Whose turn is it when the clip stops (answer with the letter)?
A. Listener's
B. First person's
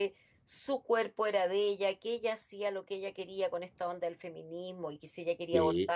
B